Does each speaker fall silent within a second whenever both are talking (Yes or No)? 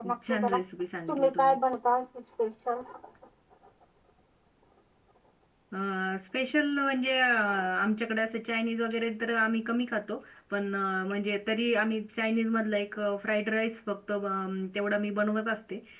Yes